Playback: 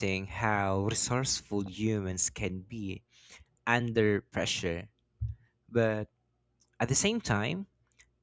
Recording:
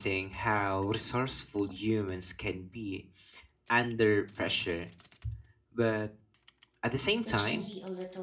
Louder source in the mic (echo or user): echo